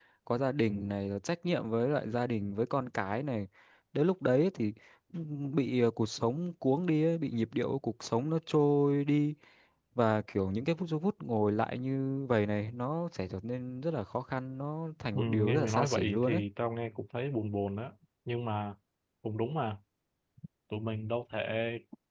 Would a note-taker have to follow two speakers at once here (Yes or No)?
Yes